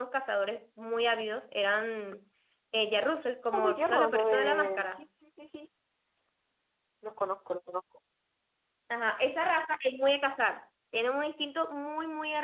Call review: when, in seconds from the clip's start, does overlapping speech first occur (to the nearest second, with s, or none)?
4 s